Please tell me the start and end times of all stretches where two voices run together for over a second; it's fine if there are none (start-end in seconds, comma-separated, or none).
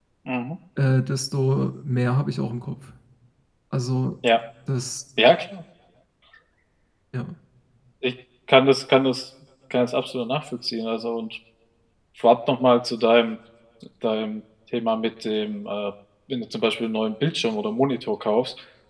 none